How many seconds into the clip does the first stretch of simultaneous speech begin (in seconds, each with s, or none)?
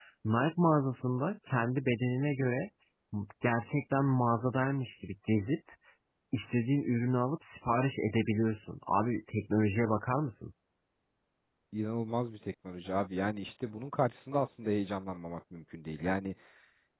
none